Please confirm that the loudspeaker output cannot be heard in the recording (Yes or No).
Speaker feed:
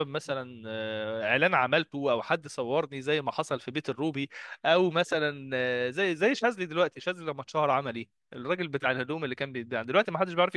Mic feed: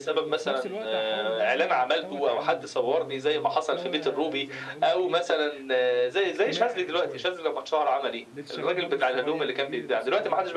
No